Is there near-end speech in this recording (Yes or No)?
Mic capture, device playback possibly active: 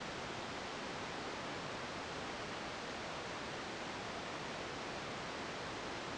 No